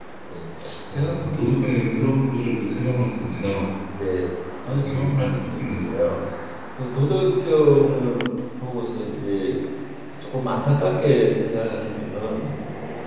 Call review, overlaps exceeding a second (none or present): present